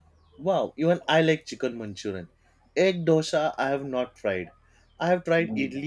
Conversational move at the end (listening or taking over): listening